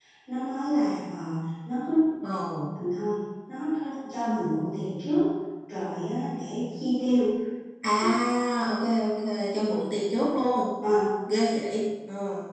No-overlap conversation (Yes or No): Yes